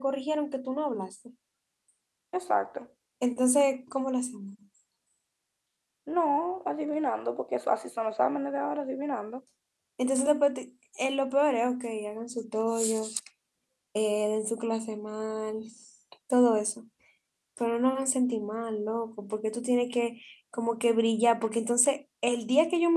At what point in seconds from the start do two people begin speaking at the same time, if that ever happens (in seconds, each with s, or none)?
none